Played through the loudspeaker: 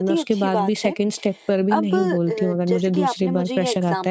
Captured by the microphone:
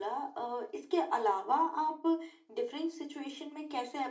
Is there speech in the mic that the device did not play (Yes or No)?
Yes